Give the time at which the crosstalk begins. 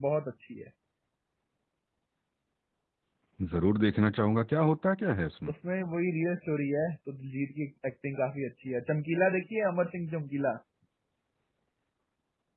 none

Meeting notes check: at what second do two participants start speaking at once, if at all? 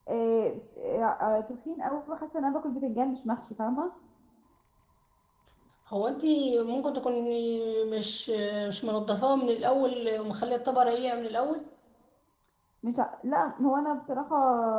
none

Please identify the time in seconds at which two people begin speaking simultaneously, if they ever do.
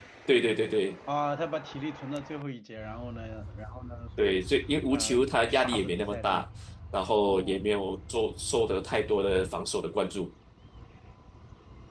4.9 s

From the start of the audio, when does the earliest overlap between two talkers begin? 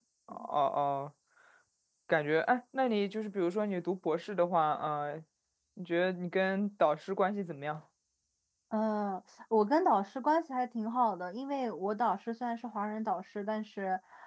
none

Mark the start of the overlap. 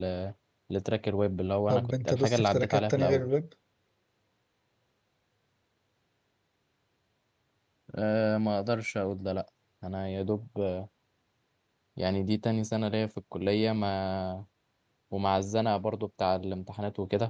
1.7 s

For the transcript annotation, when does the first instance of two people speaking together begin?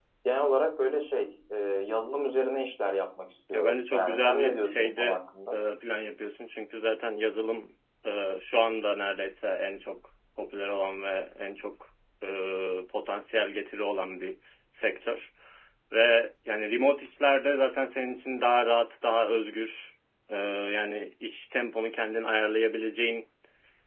3.5 s

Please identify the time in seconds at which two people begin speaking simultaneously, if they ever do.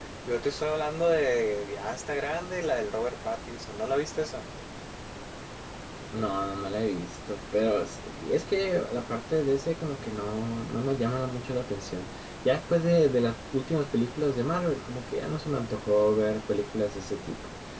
none

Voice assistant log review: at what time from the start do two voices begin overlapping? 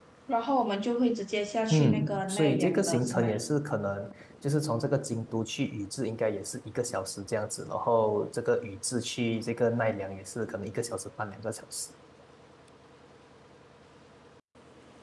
1.7 s

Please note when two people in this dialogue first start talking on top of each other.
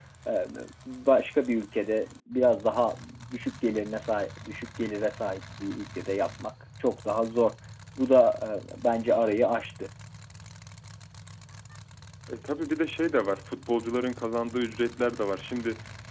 none

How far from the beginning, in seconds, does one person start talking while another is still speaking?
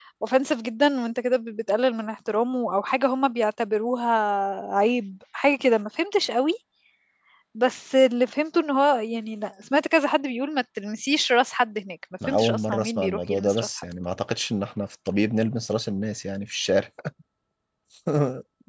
12.2 s

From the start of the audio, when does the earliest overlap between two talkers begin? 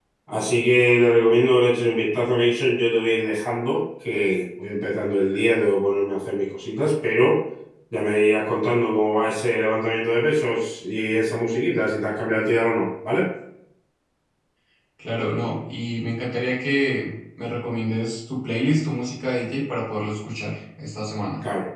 none

